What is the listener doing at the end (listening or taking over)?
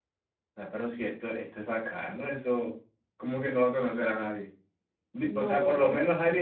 listening